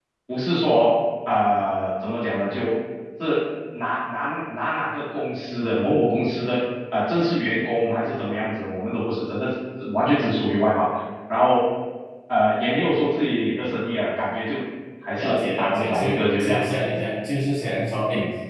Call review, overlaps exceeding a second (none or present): present